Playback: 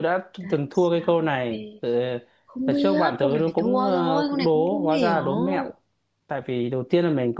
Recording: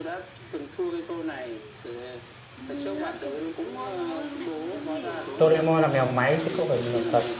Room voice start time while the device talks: 5.4 s

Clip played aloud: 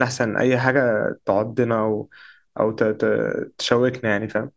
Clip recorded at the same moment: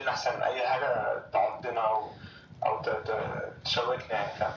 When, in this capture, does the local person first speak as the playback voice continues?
none

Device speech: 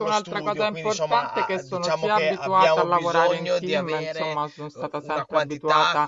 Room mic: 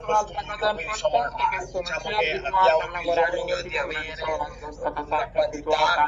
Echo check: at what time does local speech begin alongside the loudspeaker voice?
none

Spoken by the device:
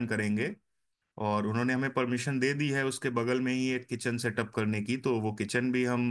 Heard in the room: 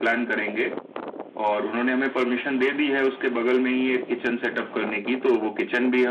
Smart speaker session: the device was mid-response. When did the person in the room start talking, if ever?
none

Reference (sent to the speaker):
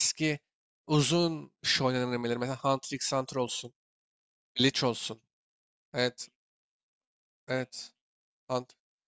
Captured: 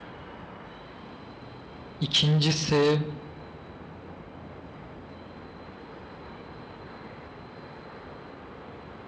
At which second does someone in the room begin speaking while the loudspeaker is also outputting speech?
2.0 s

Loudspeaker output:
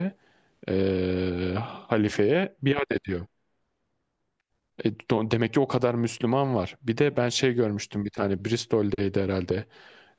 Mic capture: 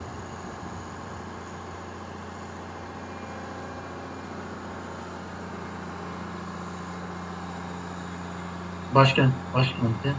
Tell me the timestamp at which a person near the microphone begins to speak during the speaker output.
8.9 s

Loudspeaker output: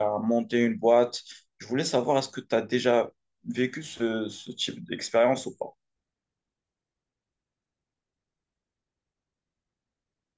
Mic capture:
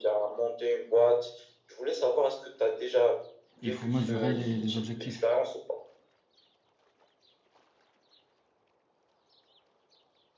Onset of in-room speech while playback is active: 3.6 s

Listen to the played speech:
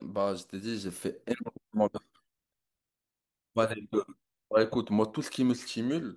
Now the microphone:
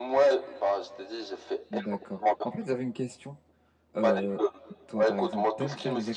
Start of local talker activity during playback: 1.7 s

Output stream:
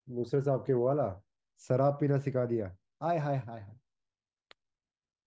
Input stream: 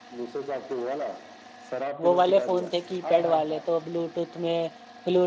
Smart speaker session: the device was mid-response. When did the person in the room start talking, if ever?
2.0 s

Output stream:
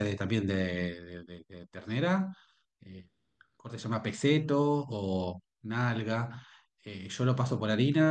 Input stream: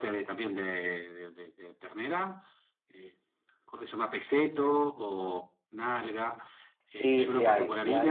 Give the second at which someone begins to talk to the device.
6.9 s

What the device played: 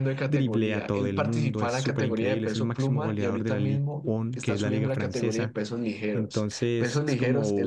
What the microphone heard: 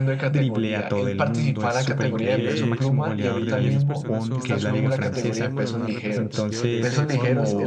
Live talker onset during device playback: 2.1 s

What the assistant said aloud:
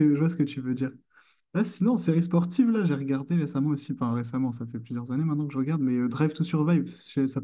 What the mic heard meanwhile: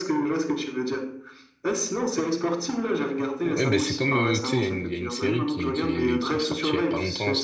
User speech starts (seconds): 3.5 s

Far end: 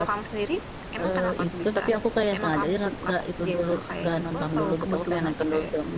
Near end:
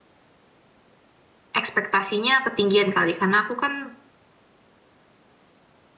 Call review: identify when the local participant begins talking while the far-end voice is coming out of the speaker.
1.6 s

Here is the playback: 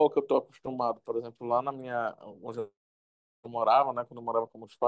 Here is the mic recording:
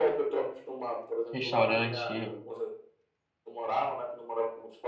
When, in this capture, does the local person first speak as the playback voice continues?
1.3 s

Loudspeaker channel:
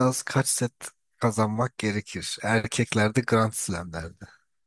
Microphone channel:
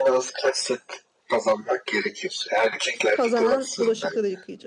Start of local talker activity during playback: 3.1 s

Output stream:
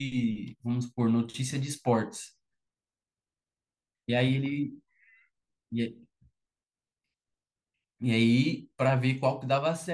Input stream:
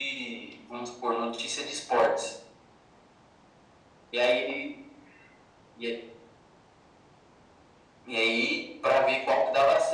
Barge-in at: none

